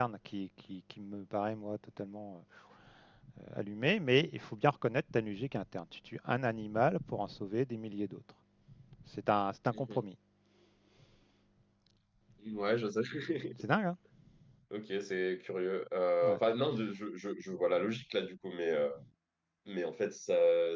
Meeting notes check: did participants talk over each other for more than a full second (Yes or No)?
No